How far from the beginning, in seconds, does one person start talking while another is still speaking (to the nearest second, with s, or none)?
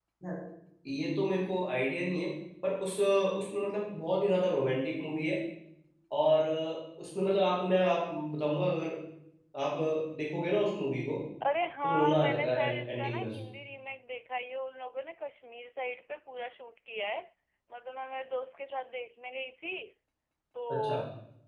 12 s